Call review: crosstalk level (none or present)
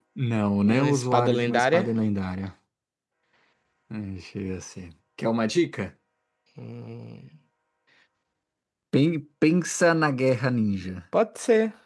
present